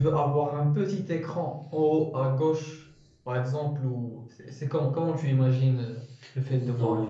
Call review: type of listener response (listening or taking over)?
taking over